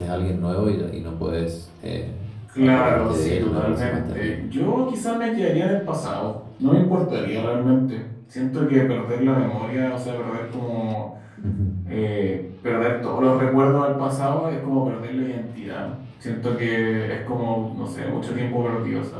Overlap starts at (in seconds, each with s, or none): 2.6 s